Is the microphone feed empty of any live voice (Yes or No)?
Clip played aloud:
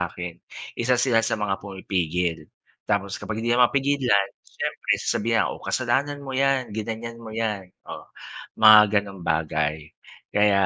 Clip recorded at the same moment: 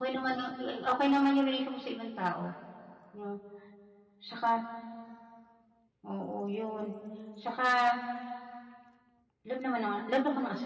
No